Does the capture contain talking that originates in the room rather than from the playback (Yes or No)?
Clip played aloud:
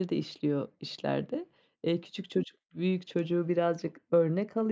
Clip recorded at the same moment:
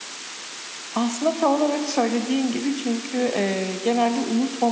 Yes